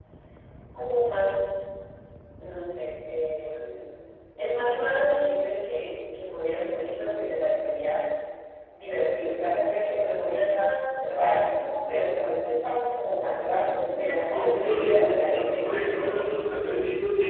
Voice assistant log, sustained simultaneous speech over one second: present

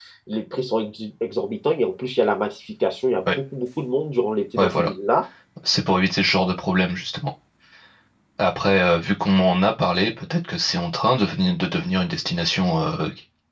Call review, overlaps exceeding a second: none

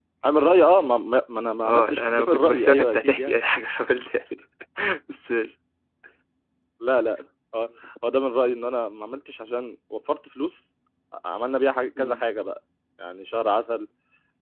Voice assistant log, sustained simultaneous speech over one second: present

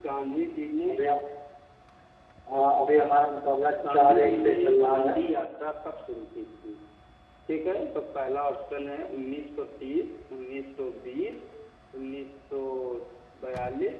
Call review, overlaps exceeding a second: present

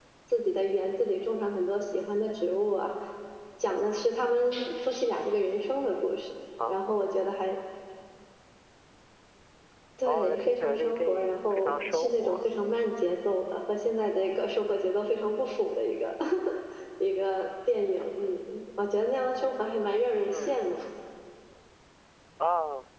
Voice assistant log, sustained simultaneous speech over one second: present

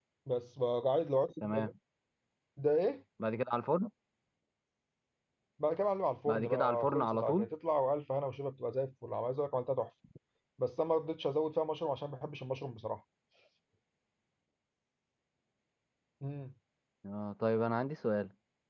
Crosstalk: present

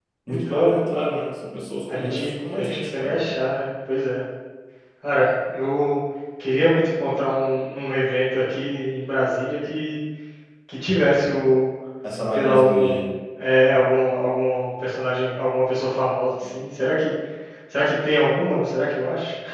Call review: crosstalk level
present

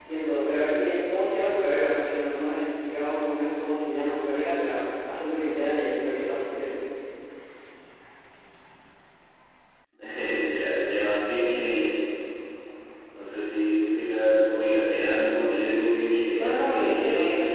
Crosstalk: present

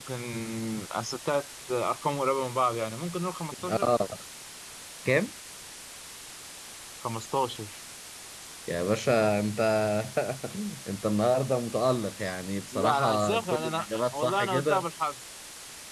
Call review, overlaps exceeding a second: present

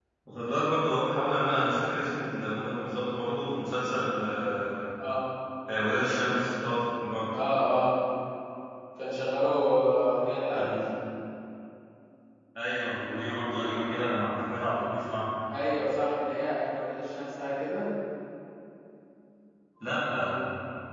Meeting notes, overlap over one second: none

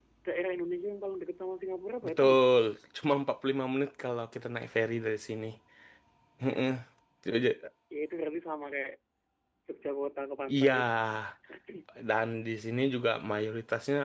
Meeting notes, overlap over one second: none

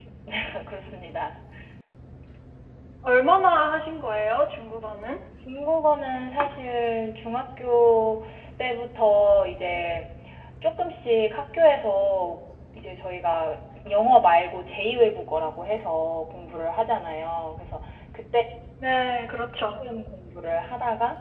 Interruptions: none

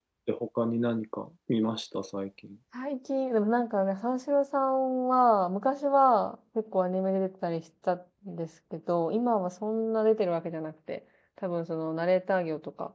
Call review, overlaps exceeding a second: none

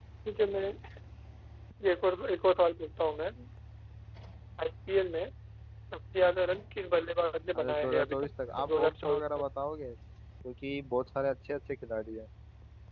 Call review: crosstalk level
present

